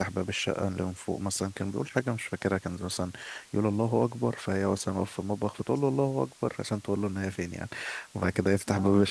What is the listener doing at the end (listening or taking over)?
listening